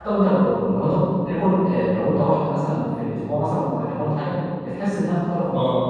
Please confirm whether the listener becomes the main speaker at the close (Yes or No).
No